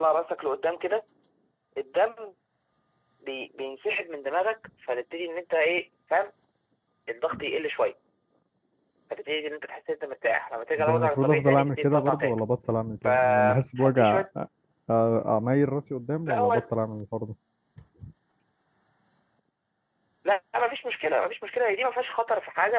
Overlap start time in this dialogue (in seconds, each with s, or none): 10.8 s